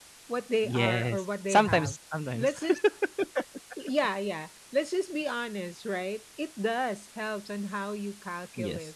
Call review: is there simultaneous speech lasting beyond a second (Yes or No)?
Yes